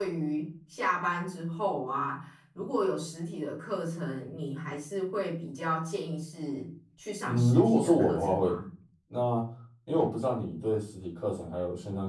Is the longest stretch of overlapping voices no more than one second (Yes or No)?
No